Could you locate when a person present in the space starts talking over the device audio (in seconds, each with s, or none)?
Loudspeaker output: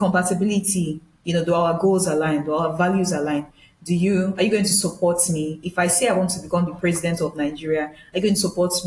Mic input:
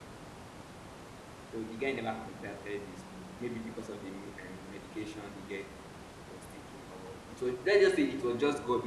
1.5 s